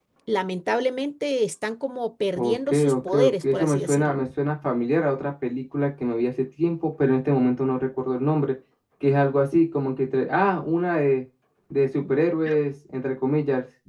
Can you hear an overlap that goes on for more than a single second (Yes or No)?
Yes